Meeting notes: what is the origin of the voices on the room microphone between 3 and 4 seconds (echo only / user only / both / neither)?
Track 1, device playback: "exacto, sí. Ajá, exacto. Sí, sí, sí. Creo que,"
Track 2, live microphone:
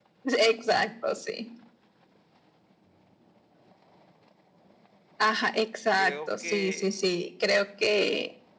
neither